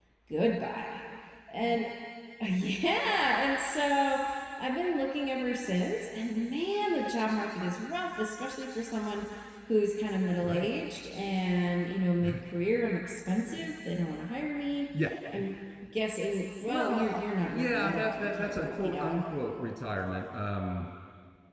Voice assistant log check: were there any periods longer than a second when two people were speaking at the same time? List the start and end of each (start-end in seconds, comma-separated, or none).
17.5-19.2